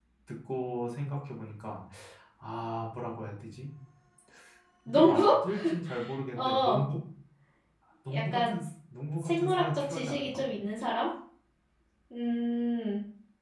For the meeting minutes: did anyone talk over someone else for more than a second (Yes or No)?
Yes